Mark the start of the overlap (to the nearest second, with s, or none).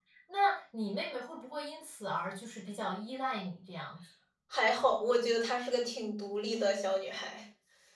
none